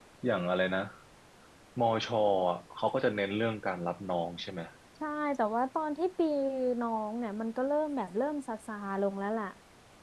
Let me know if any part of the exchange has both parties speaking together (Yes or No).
No